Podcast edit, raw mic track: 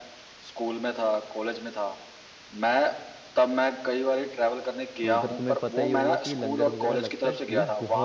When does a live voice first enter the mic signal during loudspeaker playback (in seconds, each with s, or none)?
5.0 s